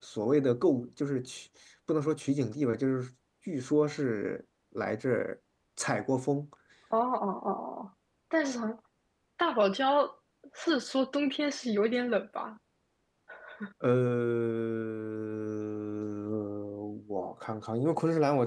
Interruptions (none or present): none